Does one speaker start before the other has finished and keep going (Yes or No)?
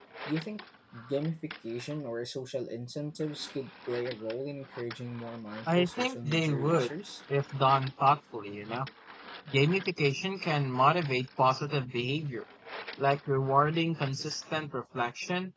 Yes